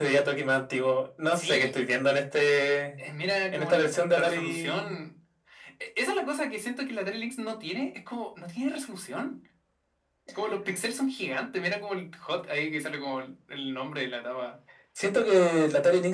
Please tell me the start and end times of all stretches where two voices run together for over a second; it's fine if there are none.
3.5-5.0

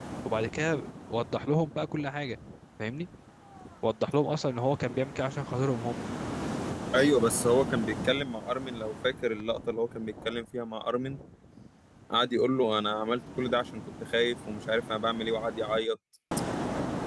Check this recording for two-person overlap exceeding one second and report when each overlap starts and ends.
none

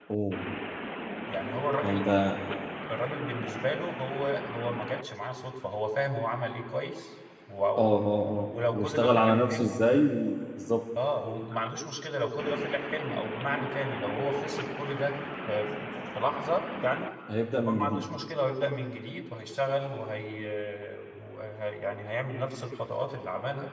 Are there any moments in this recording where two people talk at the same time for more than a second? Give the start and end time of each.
8.3-9.8

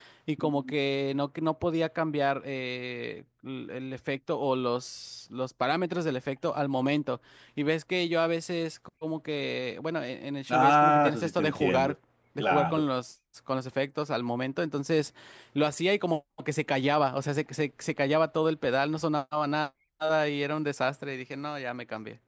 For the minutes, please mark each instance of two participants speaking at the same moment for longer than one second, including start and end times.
10.5-11.9

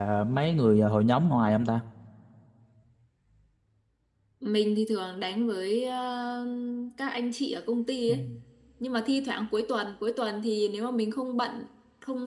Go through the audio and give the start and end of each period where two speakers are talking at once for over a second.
none

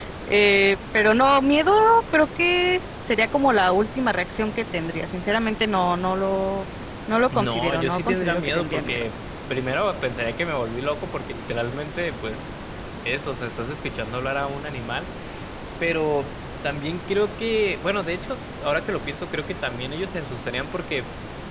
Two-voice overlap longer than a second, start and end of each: 7.3-9.0

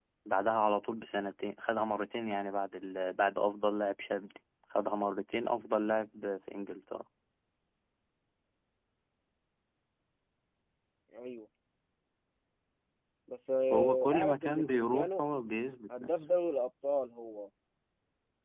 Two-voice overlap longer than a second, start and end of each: 13.7-15.2

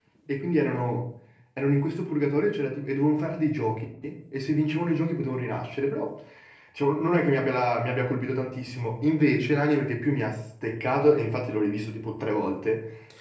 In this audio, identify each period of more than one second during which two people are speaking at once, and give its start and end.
none

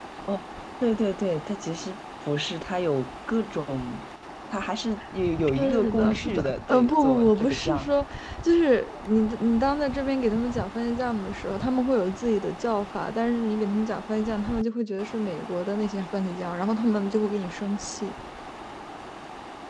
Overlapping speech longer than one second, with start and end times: 5.6-7.9

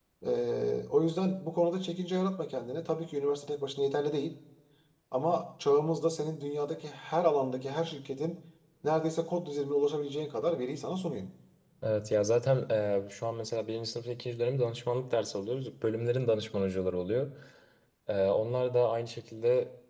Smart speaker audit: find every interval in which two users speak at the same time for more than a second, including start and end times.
none

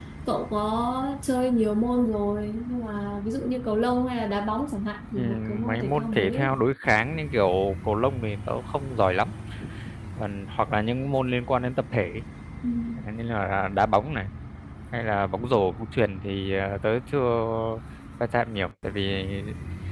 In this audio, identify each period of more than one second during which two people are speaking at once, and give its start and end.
5.2-6.5

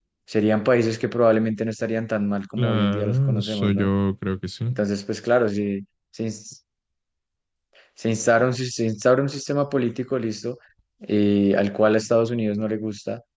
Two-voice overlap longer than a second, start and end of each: 2.6-3.9

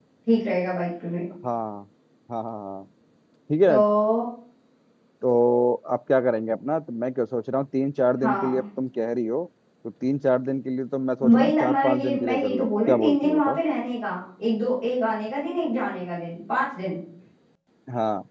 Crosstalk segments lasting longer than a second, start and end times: 11.3-13.6

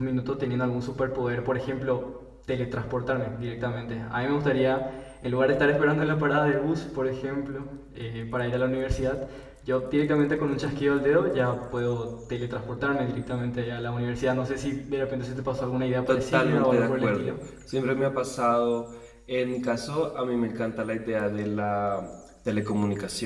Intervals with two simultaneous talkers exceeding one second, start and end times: 16.1-17.4

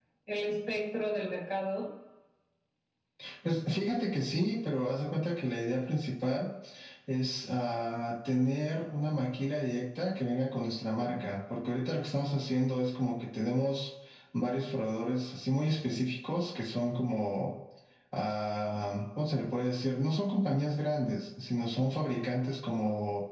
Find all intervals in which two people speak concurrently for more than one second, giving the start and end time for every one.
none

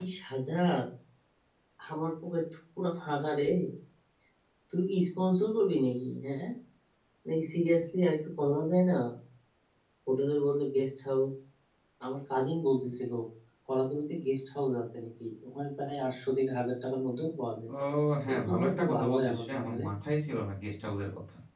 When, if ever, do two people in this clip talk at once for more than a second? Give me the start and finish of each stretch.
18.3-19.8

